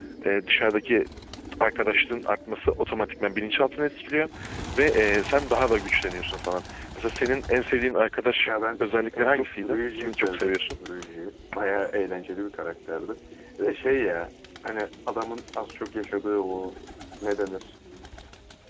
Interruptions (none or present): present